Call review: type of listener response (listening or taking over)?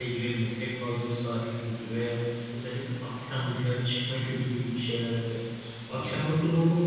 listening